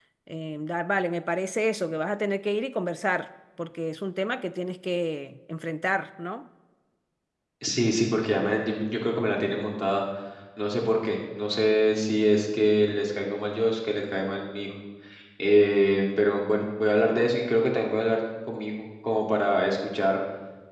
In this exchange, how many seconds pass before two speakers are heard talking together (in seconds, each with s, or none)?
none